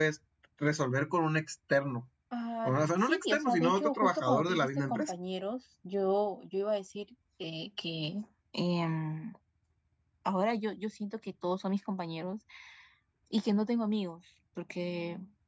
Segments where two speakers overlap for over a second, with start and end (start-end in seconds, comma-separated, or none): 2.6-5.2